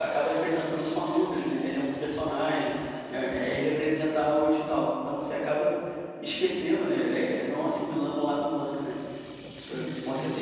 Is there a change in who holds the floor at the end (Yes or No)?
Yes